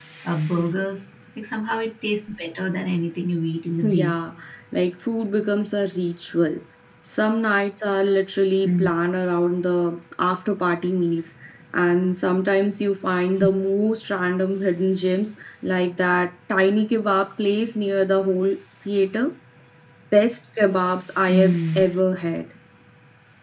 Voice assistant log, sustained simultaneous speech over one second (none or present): none